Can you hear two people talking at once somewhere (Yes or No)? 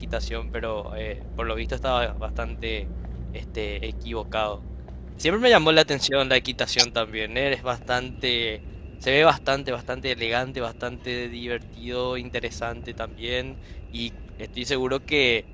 No